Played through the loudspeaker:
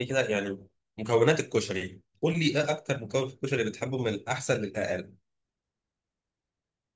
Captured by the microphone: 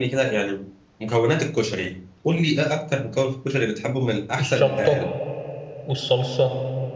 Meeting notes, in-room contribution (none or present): present